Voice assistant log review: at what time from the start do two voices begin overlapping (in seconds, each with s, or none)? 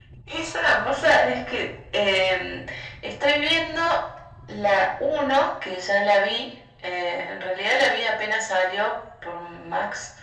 none